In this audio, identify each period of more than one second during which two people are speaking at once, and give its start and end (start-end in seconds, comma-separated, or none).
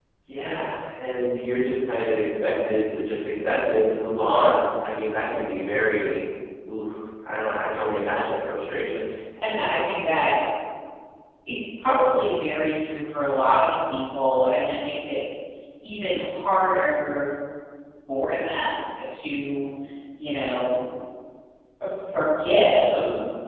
none